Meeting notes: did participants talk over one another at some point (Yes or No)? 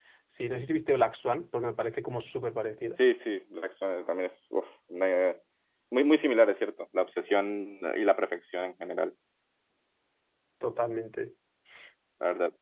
No